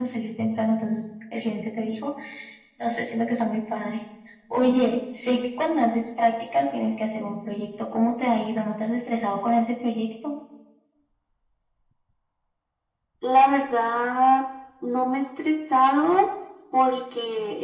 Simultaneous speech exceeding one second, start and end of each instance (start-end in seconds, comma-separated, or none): none